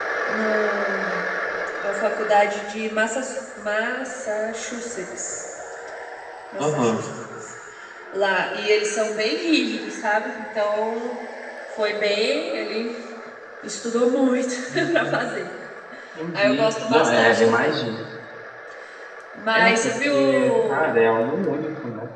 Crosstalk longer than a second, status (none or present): present